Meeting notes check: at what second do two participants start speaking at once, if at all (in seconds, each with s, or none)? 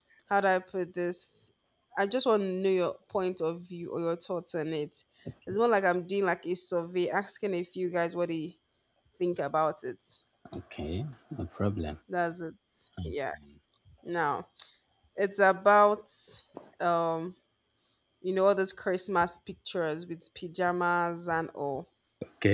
none